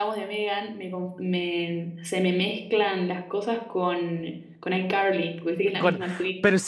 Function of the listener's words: taking over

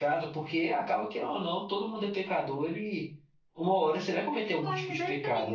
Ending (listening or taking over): taking over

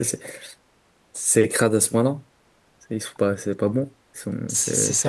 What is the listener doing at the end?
taking over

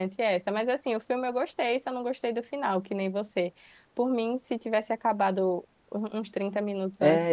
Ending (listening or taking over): taking over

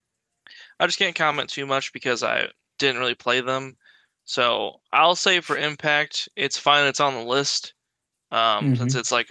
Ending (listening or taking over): listening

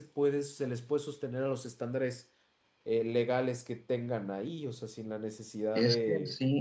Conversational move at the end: taking over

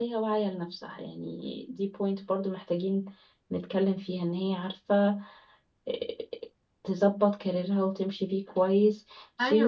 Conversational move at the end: taking over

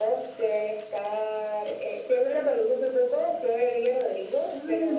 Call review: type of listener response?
listening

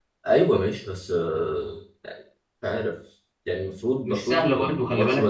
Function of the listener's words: taking over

